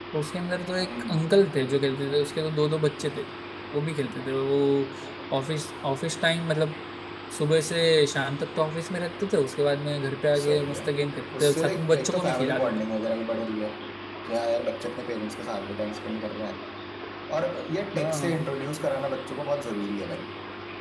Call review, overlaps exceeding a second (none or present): present